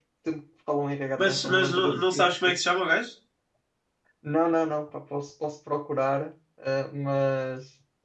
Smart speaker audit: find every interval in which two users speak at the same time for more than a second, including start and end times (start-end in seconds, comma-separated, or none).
1.2-2.6